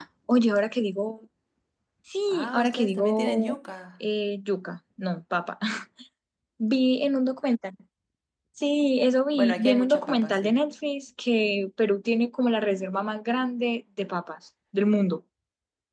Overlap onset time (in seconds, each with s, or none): 2.3 s